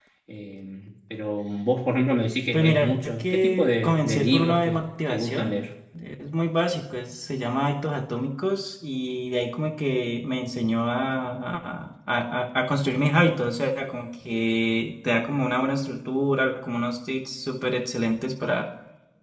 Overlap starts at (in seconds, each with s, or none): 2.5 s